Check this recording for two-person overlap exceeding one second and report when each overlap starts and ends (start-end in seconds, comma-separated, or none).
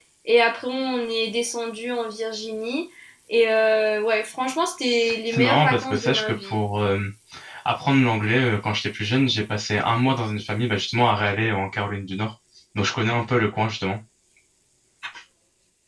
5.3-6.6